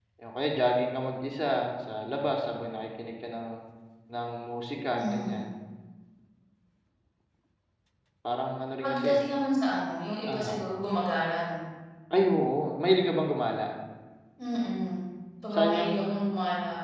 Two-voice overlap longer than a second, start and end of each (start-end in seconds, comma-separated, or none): none